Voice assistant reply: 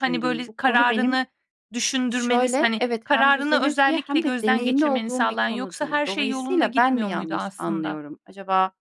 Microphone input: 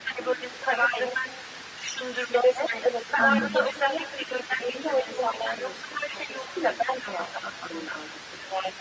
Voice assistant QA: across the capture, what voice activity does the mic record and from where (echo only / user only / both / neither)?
both